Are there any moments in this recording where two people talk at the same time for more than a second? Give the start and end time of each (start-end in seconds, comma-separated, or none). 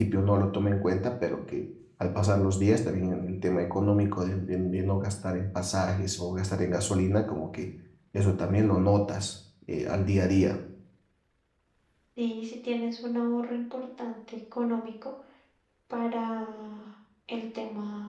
none